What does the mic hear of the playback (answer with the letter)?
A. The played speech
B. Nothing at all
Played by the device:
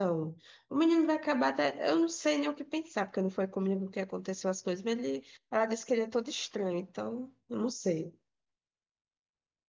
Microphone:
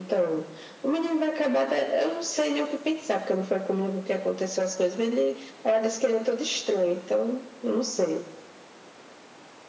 A